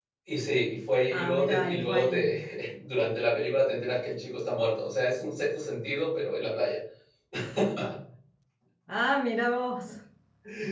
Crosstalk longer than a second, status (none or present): present